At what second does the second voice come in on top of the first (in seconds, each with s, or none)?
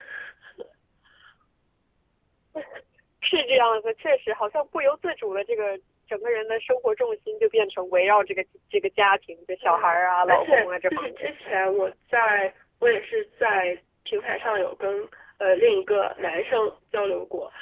9.6 s